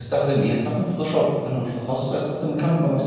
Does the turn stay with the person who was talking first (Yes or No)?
No